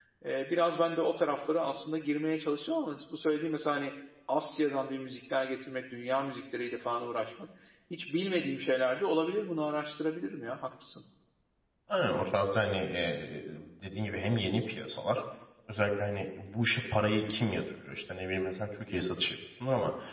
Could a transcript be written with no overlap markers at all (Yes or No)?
Yes